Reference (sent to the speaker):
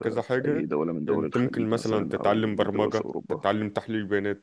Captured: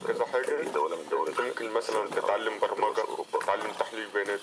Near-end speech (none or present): none